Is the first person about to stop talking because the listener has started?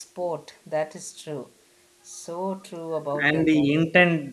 Yes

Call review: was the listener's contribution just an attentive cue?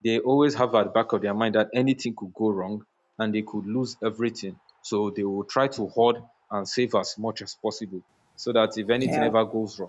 Yes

